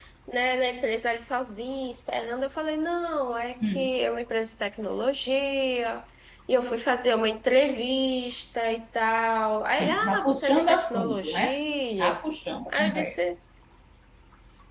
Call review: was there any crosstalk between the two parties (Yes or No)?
Yes